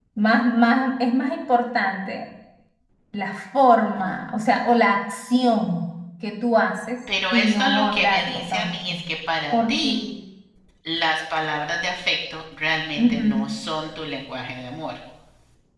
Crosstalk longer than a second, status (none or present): present